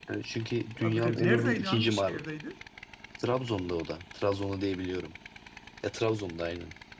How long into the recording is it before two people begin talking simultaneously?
1 s

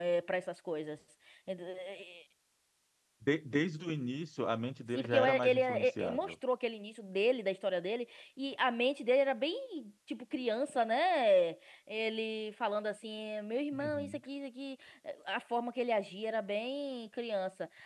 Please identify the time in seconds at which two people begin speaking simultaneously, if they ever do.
5 s

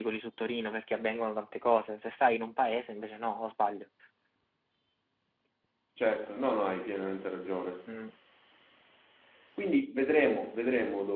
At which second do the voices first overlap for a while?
none

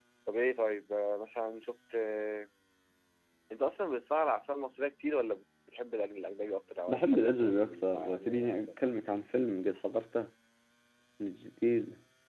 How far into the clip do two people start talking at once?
7 s

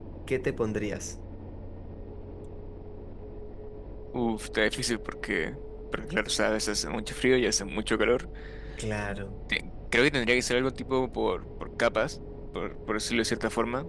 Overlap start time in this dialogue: none

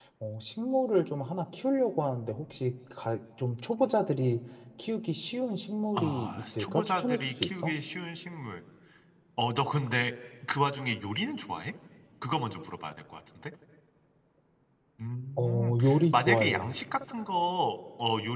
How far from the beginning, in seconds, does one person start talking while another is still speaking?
6 s

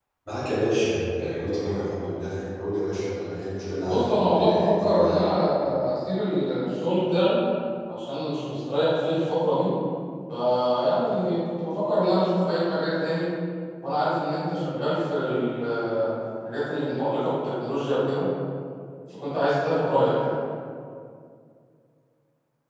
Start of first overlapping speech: 4 s

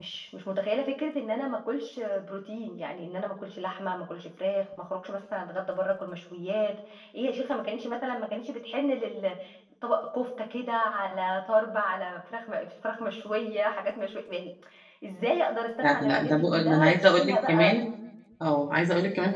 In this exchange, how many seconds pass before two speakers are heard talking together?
16 s

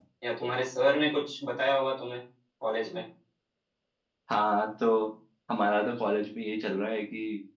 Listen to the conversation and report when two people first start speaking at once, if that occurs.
none

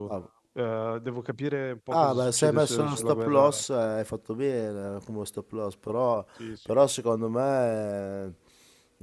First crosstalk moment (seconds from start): 2 s

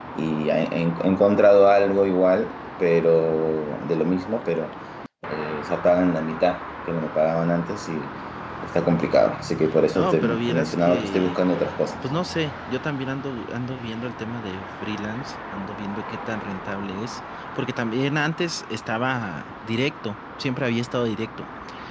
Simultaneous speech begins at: 10 s

